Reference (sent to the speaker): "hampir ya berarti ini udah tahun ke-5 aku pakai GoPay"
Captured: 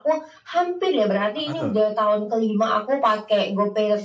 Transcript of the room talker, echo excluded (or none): Apa tuh?